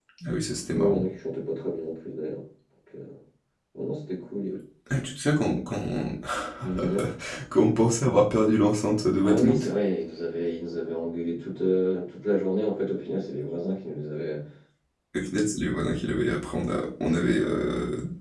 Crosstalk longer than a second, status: none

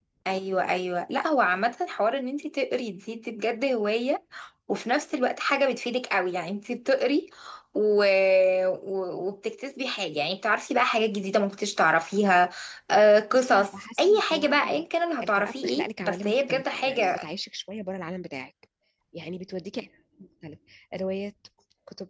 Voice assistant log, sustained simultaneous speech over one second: present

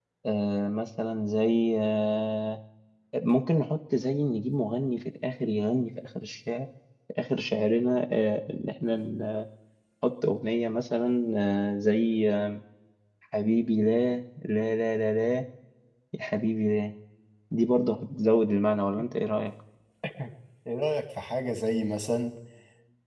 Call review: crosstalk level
none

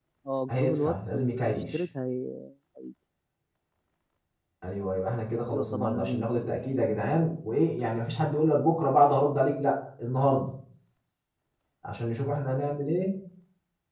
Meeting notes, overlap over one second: present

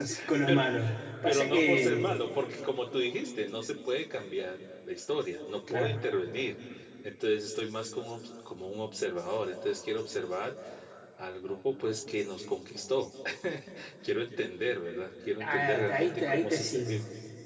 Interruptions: present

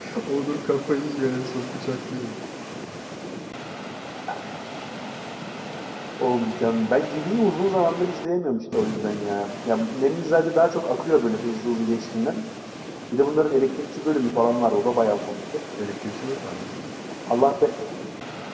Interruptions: none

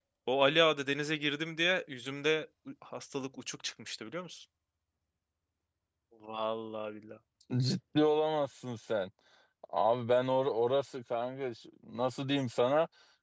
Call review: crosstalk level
none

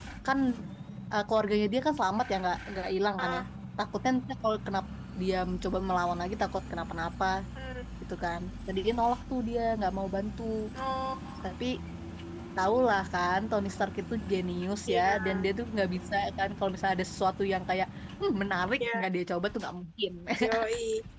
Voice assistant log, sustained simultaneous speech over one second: none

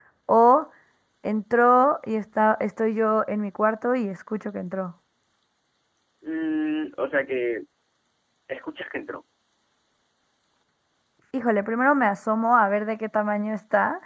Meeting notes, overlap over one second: none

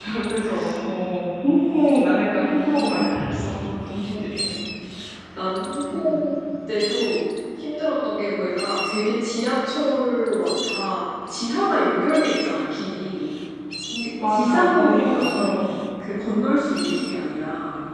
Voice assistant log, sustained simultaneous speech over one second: present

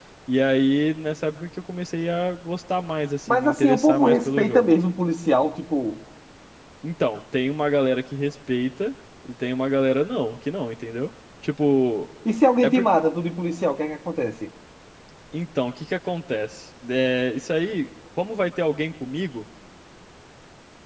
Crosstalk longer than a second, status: present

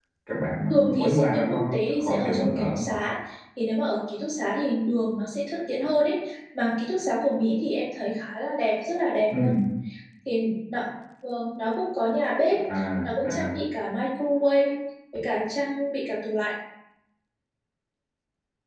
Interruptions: present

